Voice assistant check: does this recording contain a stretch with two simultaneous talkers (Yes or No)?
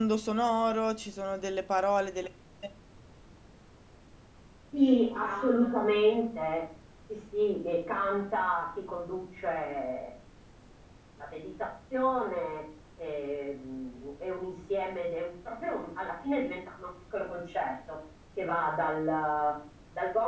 No